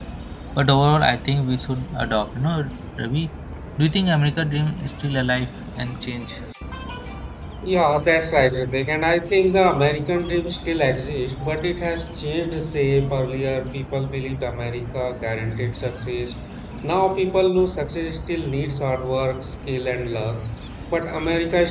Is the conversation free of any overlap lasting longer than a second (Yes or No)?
Yes